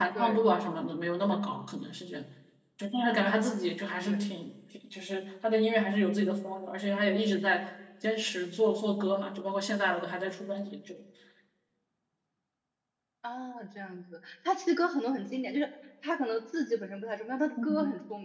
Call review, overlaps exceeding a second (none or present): none